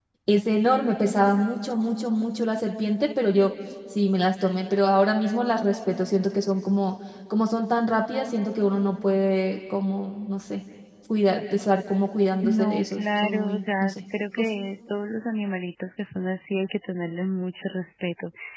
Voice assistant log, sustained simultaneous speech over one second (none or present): present